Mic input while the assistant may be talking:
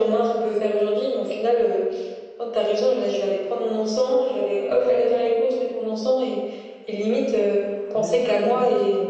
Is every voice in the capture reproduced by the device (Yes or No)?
No